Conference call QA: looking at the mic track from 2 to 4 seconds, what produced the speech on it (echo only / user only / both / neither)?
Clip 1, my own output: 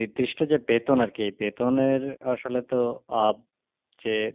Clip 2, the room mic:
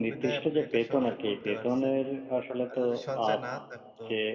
both